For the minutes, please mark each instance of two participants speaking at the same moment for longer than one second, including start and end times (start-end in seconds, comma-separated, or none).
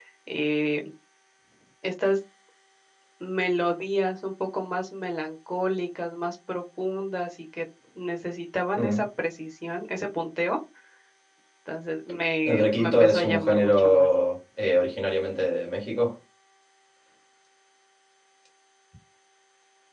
12.4-14.1